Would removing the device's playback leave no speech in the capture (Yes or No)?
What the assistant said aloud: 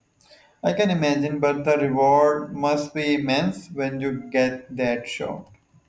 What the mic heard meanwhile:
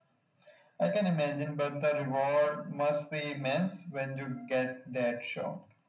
Yes